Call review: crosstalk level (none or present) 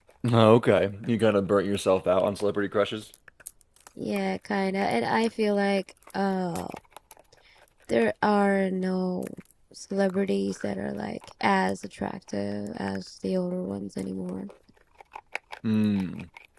none